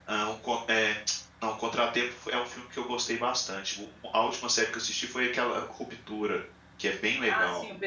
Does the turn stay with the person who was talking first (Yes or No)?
No